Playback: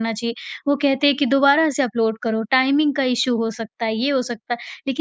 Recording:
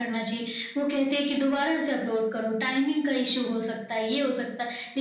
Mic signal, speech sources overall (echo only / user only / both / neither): echo only